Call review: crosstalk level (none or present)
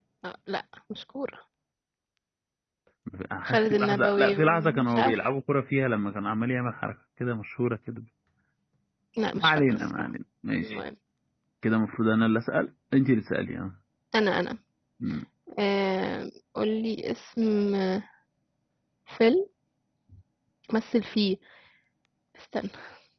present